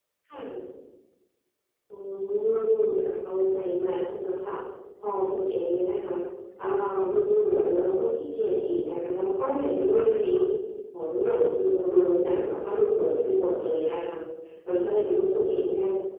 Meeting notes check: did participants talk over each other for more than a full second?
No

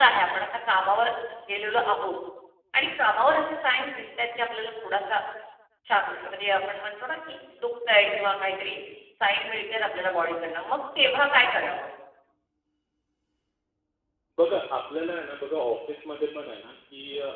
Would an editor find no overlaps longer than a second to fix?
Yes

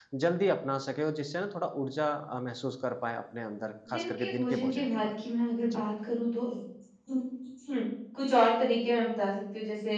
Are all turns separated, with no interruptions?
No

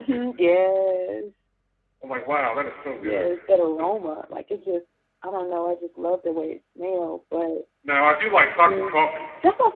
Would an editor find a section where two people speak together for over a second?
No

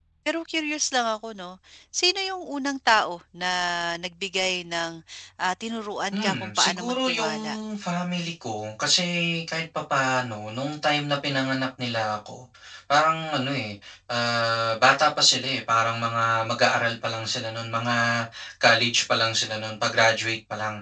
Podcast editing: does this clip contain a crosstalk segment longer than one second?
Yes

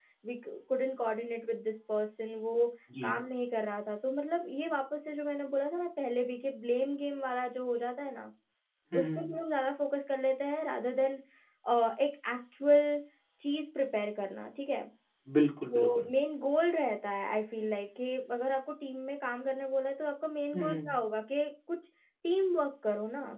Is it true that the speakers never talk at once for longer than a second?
Yes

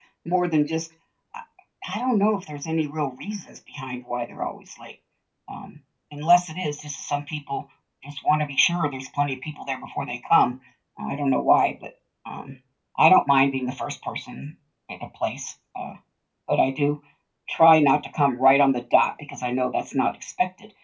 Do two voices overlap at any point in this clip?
No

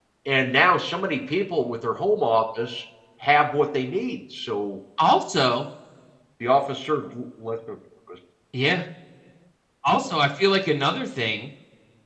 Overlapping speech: No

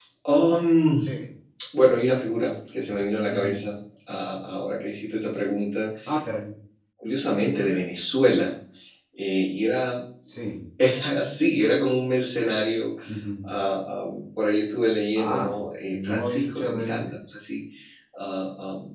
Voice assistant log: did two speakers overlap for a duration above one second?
Yes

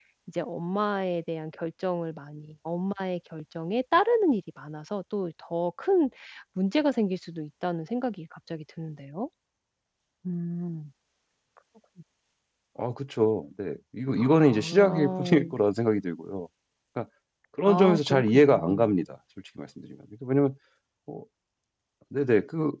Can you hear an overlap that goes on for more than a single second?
Yes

